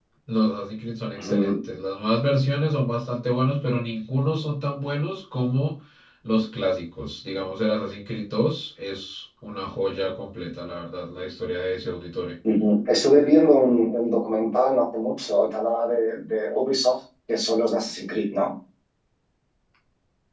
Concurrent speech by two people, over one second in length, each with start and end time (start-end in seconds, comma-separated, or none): none